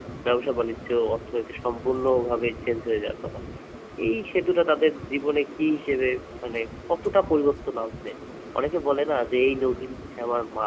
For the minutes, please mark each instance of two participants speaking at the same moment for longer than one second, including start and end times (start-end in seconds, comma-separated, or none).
none